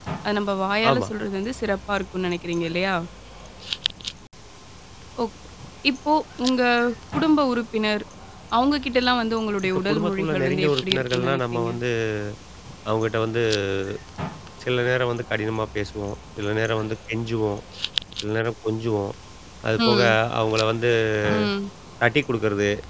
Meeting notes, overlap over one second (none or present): present